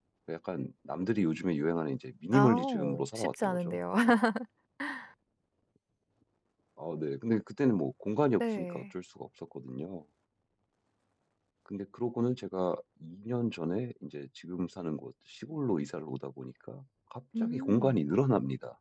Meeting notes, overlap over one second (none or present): present